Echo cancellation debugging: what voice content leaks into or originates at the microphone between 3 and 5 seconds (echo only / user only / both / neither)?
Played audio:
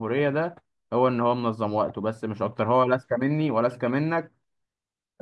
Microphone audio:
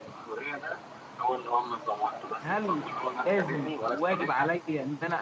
both